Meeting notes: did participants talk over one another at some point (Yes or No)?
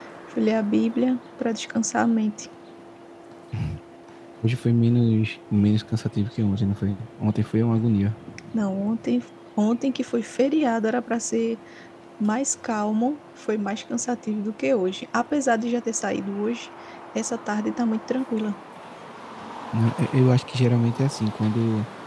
No